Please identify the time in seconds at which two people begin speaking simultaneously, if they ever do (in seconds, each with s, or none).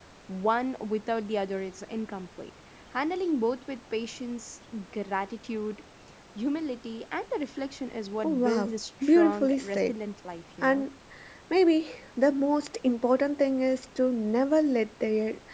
8.2 s